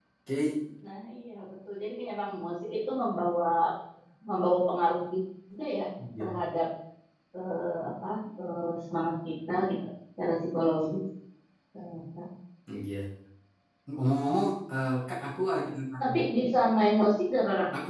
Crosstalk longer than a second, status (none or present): none